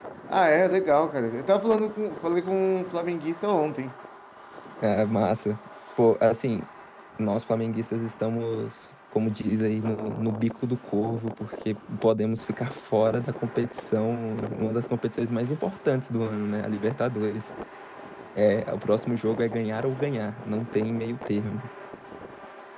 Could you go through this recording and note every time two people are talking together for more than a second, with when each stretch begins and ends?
none

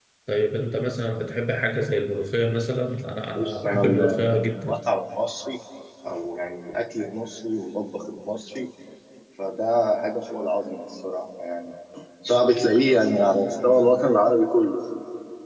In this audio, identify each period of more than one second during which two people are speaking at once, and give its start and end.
3.4-4.8

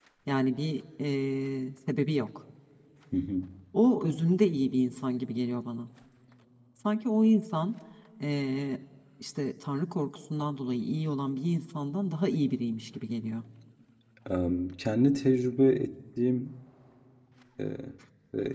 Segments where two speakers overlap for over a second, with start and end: none

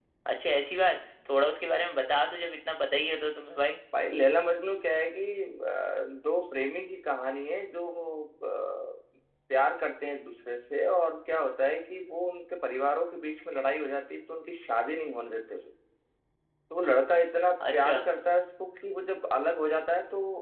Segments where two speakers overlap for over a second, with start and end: none

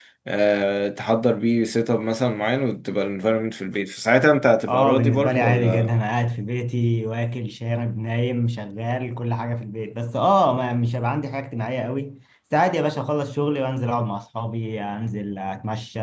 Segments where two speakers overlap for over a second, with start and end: 4.7-5.9

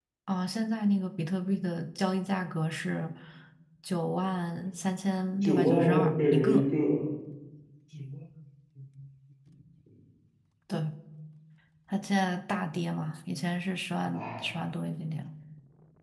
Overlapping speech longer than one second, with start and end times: 5.4-6.7

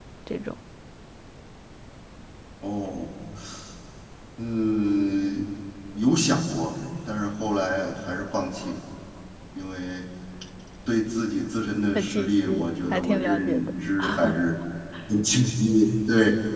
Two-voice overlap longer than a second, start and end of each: 11.9-13.6

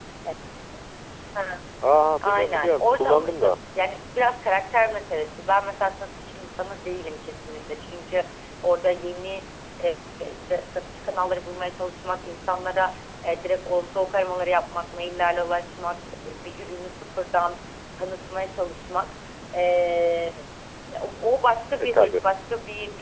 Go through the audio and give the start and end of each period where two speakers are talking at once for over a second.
2.2-3.6

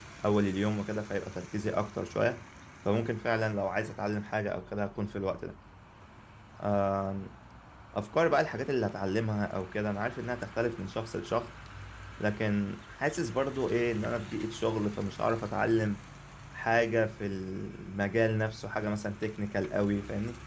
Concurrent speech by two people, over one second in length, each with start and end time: none

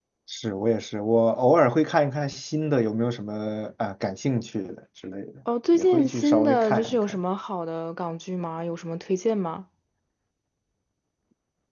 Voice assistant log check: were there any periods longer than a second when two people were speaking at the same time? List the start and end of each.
5.7-7.2

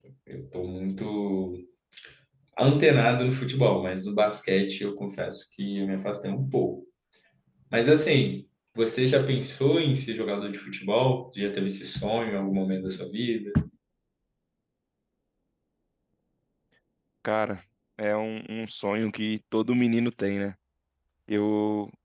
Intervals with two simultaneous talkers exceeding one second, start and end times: none

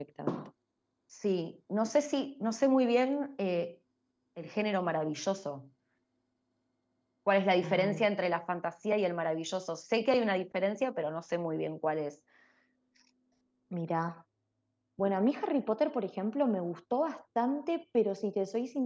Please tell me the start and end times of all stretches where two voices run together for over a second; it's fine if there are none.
none

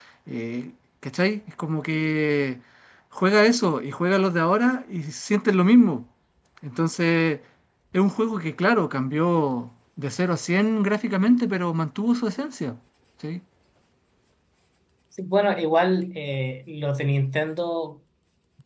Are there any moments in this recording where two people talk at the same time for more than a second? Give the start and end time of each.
none

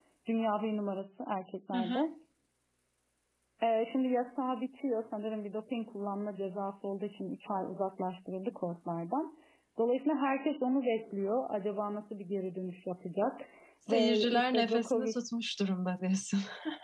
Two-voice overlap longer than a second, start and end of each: 13.9-15.1

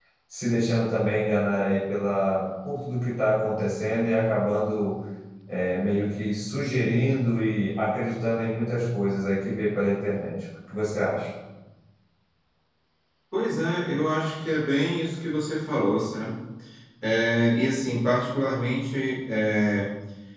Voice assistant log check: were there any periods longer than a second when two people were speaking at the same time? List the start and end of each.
none

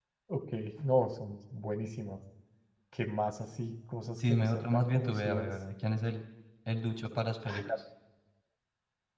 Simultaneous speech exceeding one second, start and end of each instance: 4.2-5.5

